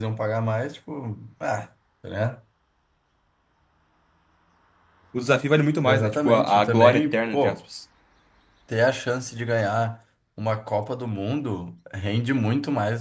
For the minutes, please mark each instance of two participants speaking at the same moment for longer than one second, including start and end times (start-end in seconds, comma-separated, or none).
5.8-7.6